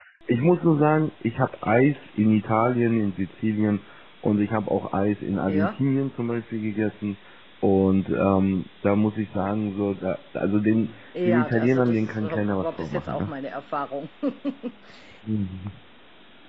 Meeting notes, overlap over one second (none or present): present